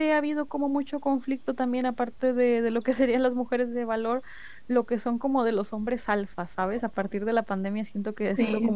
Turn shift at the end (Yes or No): No